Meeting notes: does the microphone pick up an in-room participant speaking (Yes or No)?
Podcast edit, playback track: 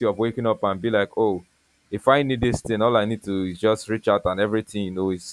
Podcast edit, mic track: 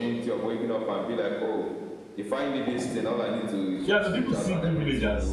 Yes